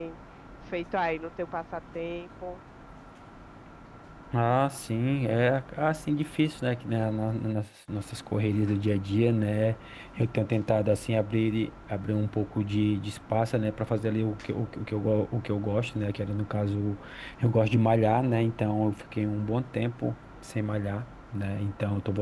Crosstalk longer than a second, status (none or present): none